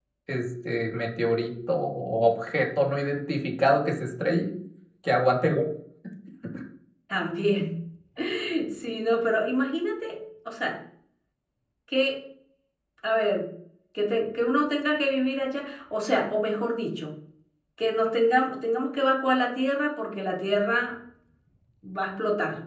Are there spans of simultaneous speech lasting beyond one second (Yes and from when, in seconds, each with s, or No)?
No